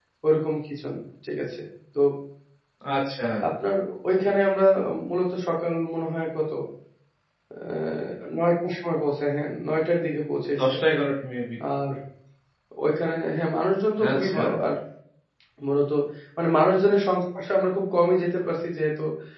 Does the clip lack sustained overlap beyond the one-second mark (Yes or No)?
Yes